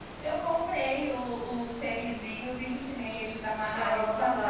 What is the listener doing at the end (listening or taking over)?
listening